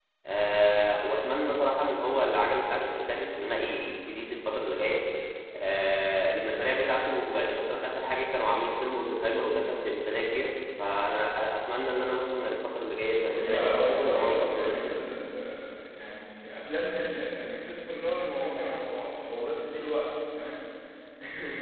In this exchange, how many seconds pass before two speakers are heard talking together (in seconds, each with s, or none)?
13.3 s